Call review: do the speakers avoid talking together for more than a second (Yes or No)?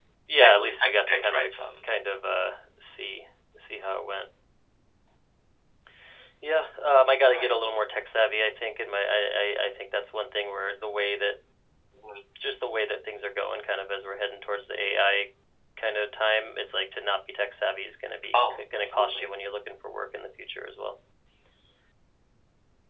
No